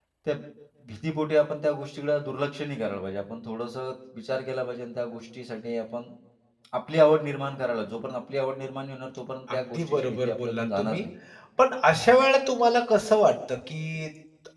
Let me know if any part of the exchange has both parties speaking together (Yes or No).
Yes